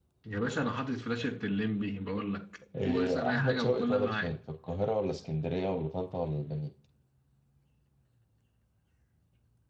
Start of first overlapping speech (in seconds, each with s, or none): 2.7 s